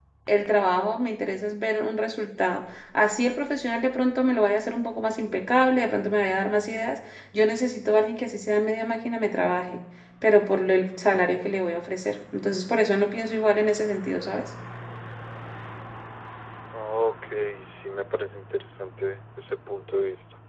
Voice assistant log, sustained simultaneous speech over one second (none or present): none